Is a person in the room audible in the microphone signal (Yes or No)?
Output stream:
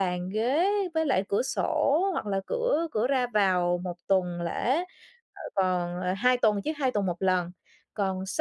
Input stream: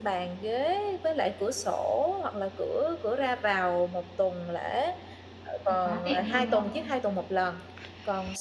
Yes